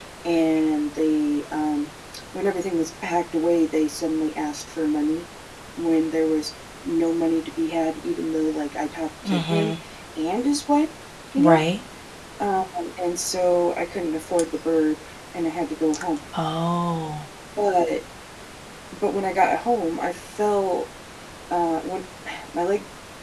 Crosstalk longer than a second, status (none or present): none